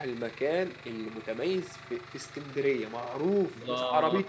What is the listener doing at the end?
taking over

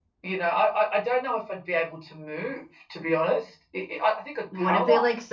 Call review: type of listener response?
taking over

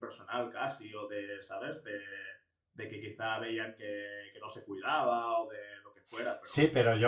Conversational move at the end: taking over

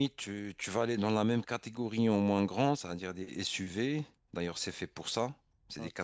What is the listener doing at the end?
listening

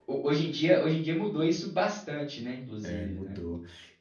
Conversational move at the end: taking over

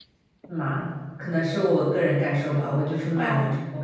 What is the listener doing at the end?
listening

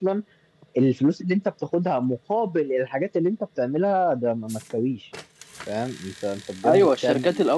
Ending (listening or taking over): taking over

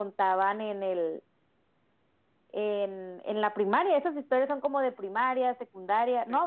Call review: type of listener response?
listening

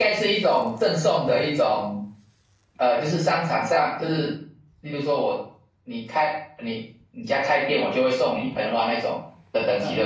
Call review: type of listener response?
taking over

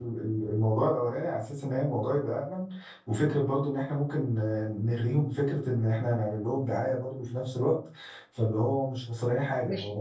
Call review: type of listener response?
taking over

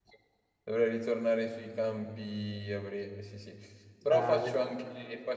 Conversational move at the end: listening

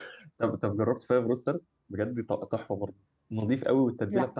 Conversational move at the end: listening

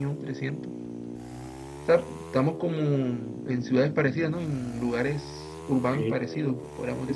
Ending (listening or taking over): taking over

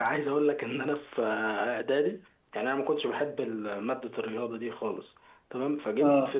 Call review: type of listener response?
listening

